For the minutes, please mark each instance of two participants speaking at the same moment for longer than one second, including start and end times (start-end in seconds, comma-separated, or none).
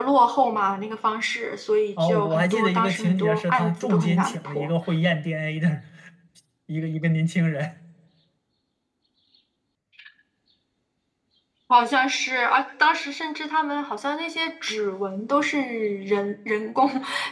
2.0-4.7